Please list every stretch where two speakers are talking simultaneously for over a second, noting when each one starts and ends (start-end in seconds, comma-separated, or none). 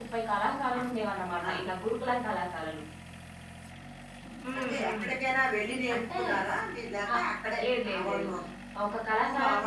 none